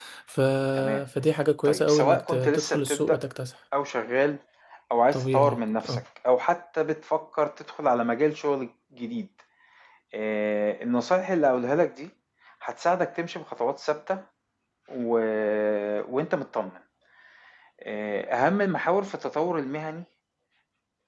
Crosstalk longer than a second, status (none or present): present